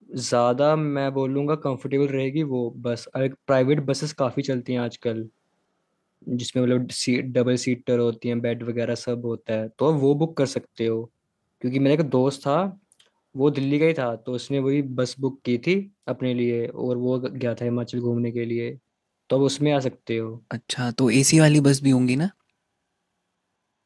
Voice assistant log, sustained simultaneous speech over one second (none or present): none